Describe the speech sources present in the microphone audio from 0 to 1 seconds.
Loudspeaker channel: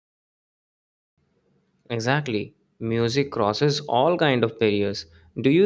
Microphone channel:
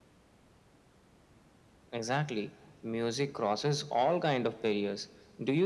neither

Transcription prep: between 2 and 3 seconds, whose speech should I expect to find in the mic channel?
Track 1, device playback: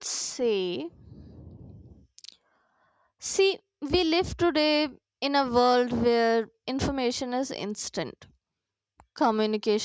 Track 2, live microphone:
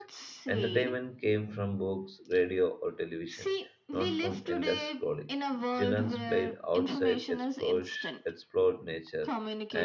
user only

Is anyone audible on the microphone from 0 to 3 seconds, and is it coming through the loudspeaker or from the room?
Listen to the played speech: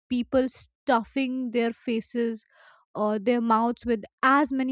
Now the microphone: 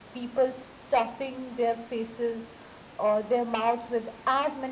echo only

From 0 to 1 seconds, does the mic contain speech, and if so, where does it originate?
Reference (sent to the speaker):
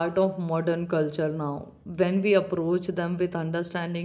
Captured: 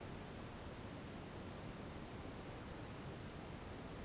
neither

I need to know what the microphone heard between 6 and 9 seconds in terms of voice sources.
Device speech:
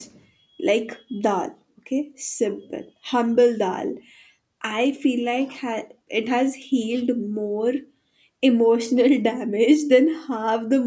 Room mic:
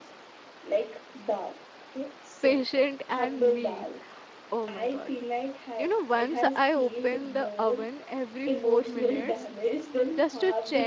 both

